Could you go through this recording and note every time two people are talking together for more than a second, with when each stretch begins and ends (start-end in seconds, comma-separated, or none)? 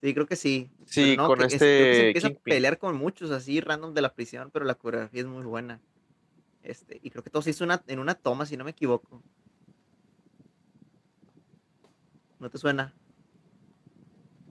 1.0-2.6